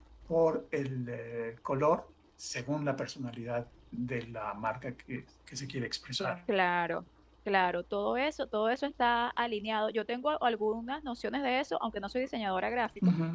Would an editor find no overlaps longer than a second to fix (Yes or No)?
Yes